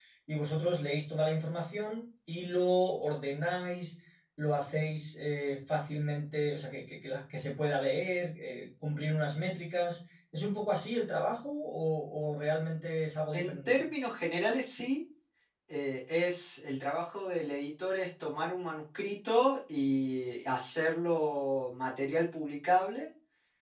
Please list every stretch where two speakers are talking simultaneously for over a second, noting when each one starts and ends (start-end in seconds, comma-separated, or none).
none